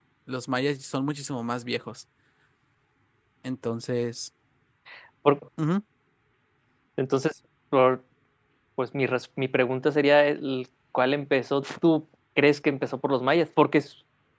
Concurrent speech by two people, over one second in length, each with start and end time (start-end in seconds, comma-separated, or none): none